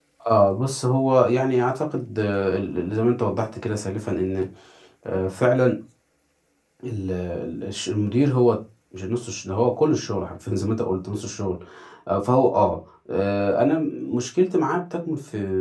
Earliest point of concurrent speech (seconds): none

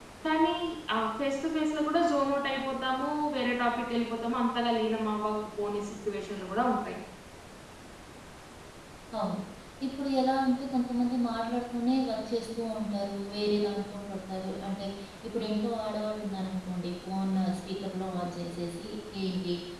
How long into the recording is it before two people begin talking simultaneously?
none

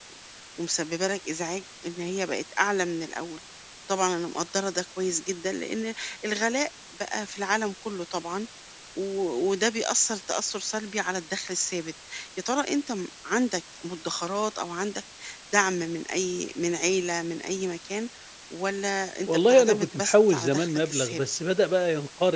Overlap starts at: 19.3 s

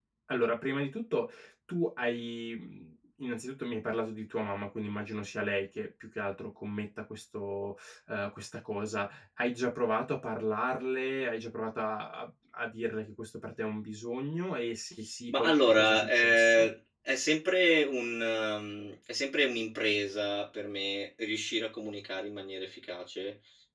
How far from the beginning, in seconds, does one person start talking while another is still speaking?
15.3 s

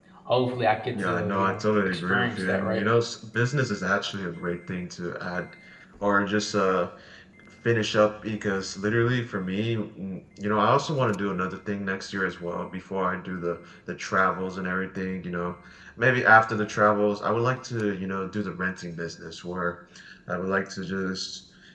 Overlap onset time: 0.9 s

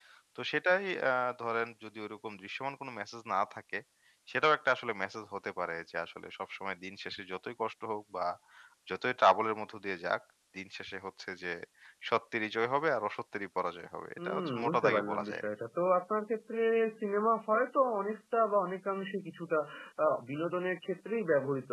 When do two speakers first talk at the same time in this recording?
14.2 s

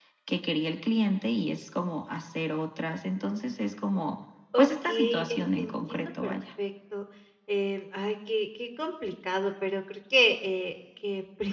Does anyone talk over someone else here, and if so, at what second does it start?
4.5 s

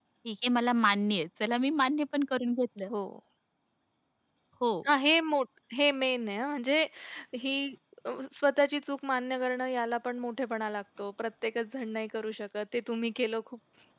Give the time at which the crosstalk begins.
none

